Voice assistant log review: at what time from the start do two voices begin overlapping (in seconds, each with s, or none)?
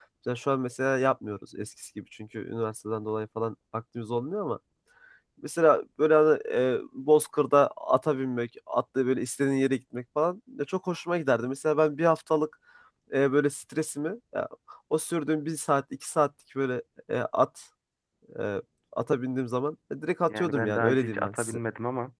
20.3 s